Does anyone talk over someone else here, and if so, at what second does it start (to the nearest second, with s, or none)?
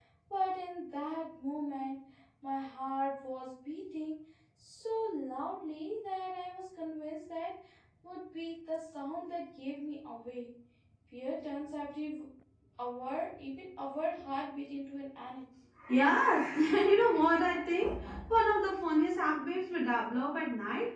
none